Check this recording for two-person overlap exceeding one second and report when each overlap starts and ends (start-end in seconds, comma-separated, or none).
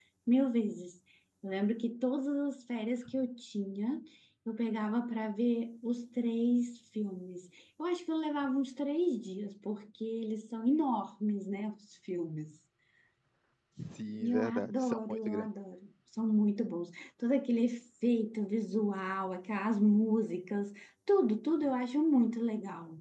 14.2-15.5